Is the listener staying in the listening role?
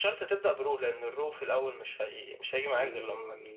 No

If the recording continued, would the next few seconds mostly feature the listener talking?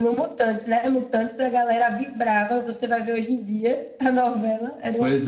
Yes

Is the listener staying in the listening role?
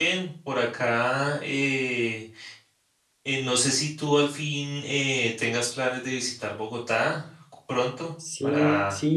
No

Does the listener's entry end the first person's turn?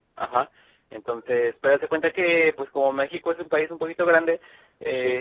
No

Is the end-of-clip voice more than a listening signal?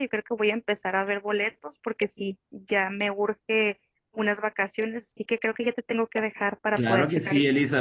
Yes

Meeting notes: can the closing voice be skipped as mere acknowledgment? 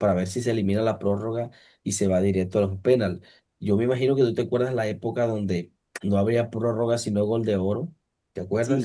No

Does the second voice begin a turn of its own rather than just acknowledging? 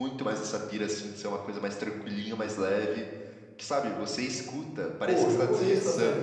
Yes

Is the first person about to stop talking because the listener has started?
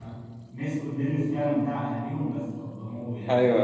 Yes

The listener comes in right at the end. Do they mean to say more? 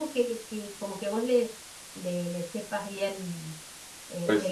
Yes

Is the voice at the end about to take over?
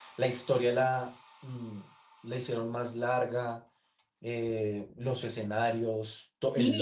Yes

